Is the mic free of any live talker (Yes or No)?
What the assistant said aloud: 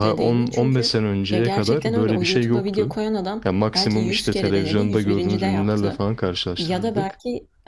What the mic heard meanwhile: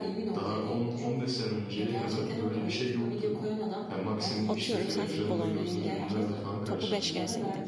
No